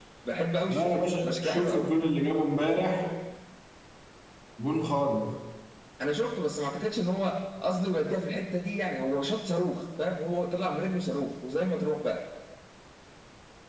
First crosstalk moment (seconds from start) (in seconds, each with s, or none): 0.7 s